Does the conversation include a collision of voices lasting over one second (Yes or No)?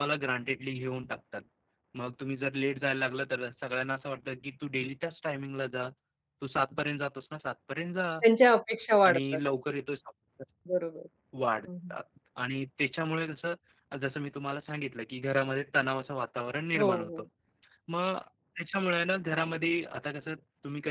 No